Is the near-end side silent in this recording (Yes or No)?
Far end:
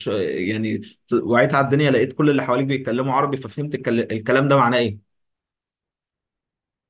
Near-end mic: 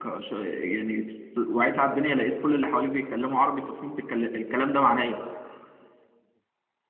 Yes